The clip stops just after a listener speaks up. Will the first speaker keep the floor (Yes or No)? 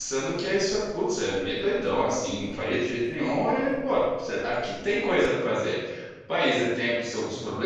Yes